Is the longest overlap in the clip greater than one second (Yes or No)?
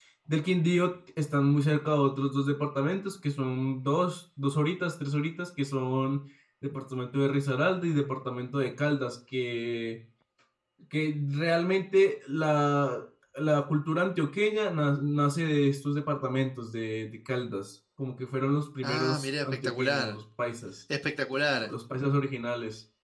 Yes